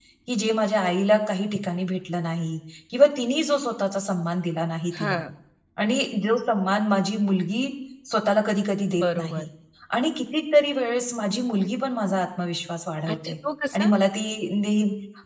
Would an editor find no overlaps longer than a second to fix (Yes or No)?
Yes